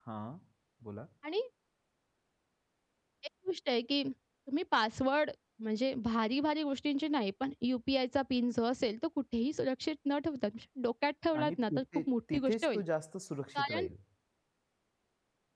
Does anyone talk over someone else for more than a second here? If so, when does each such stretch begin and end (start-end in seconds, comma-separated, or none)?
11.4-12.8